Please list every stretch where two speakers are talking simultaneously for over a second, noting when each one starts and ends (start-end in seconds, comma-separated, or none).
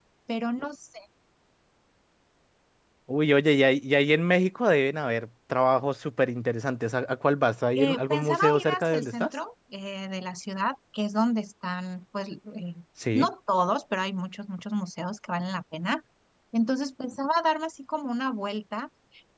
7.8-9.3